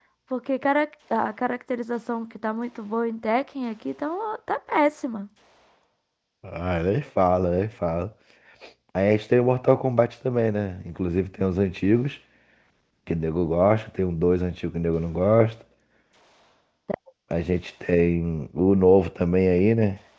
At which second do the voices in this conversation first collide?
none

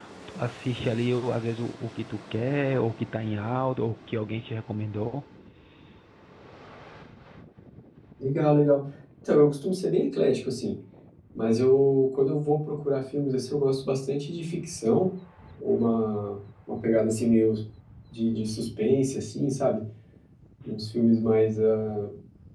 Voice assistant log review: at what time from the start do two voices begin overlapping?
none

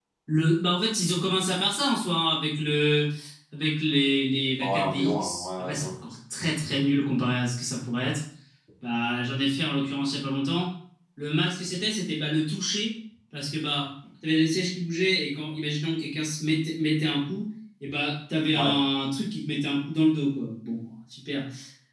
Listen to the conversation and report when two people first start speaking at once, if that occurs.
5 s

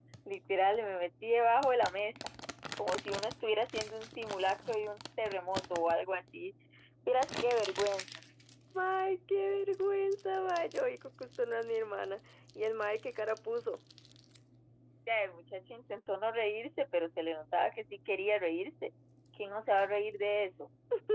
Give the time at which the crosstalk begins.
none

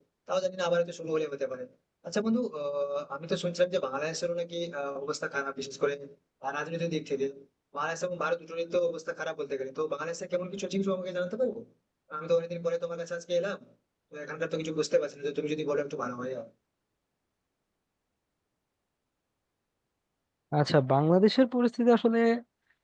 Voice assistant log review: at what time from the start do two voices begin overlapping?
none

